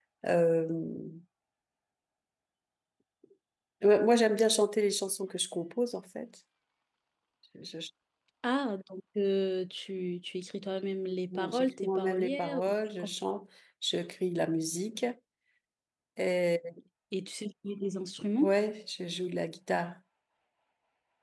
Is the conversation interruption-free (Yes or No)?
No